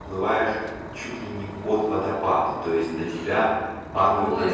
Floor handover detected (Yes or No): No